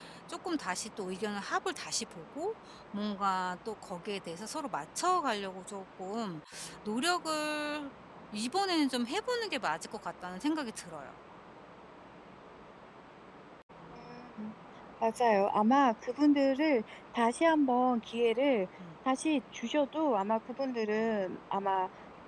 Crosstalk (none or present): none